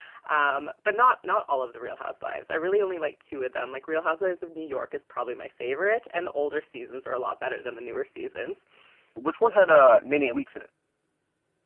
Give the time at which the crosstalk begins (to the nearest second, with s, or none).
none